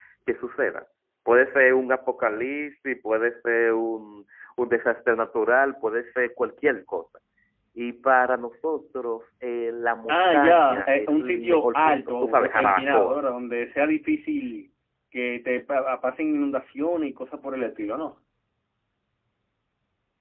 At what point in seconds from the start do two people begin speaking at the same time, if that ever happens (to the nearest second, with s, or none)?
10 s